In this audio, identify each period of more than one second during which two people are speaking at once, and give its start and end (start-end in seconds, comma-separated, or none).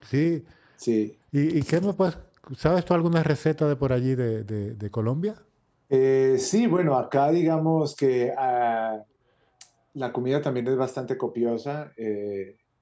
none